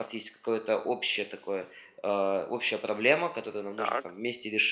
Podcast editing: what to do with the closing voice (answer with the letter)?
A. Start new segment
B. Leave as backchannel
B